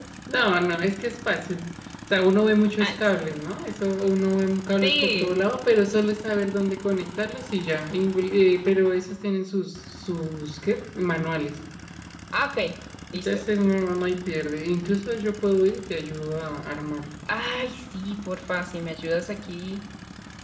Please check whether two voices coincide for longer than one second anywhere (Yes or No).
No